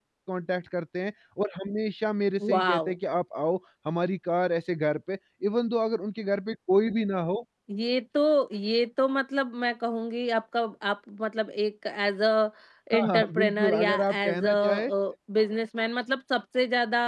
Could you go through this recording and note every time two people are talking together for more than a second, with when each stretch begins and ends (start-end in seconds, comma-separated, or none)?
12.9-14.9